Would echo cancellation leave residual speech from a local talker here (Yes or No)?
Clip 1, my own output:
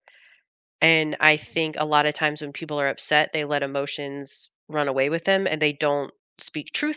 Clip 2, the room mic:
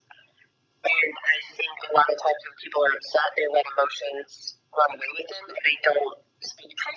No